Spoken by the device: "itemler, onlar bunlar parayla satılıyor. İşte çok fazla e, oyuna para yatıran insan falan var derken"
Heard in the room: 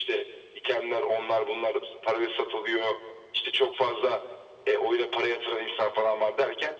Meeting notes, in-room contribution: none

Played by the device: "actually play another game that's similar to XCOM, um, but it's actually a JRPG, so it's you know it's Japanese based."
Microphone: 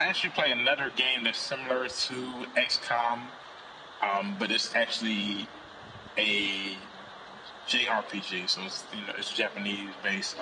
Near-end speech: none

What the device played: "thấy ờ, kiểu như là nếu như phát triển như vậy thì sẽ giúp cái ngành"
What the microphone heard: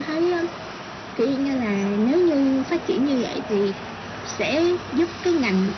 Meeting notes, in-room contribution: none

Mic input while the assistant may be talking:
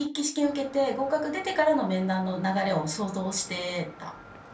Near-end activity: none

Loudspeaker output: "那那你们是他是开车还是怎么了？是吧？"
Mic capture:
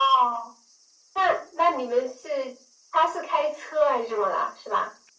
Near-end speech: none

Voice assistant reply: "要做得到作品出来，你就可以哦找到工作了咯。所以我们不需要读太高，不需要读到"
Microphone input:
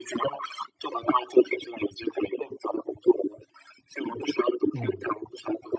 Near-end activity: present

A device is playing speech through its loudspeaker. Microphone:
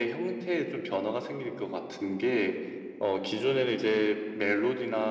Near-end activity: none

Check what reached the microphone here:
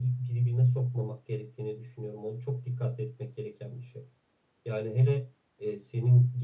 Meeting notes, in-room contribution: none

